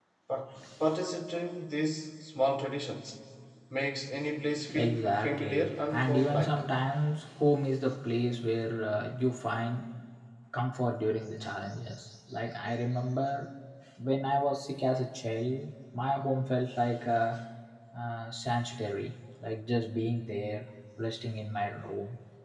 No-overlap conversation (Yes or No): No